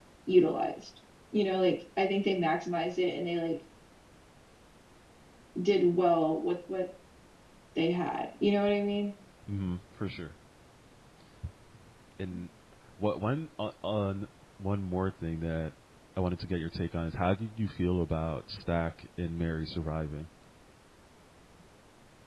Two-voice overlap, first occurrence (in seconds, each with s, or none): none